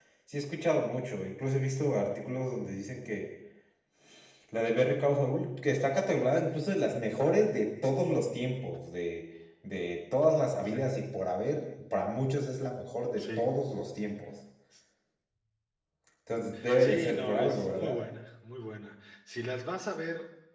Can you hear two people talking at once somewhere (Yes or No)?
Yes